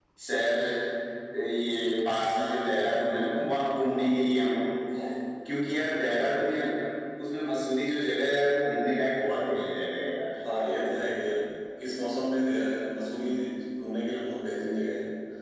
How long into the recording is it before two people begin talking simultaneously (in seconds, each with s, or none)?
none